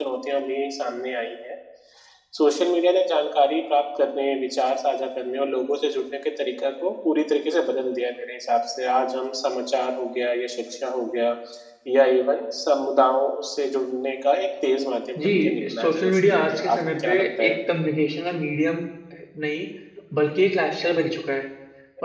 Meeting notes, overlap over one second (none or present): present